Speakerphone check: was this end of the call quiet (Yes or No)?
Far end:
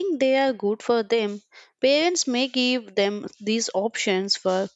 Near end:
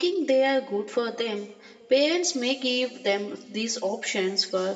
Yes